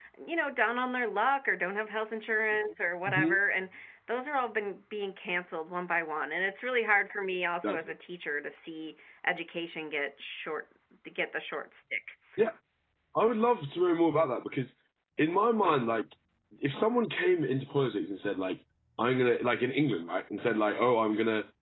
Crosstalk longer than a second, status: none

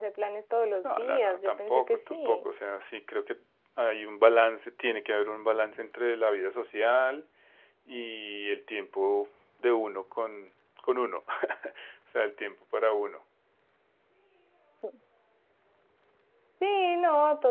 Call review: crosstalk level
present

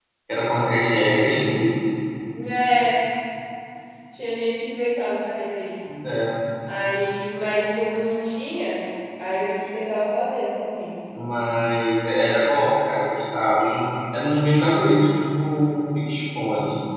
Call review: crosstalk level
none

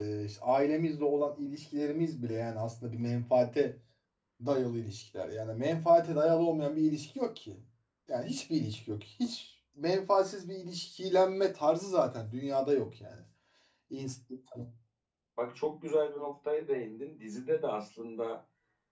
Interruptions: none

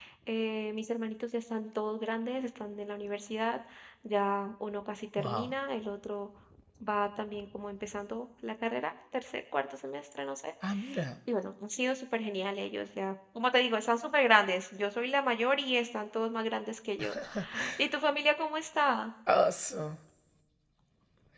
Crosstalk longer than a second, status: none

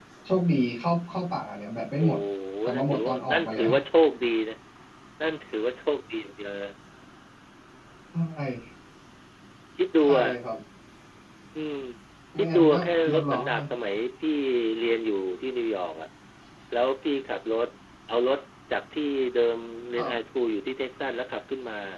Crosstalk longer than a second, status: present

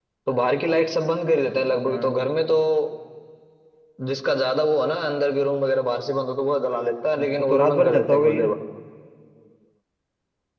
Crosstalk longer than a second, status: present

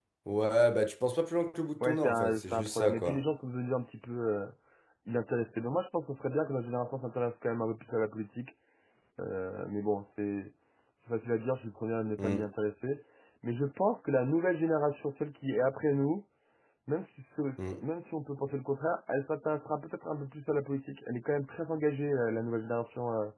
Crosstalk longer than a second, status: present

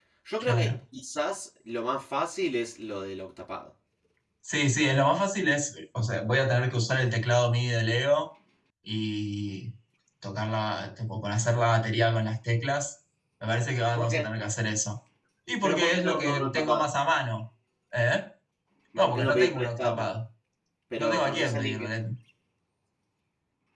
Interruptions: present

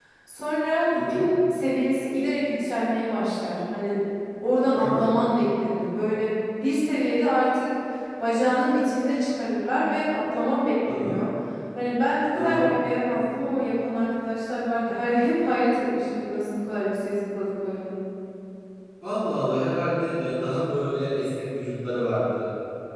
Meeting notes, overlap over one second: none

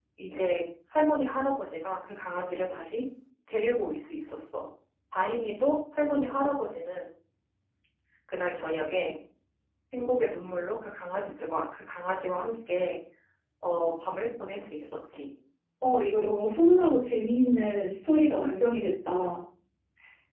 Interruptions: none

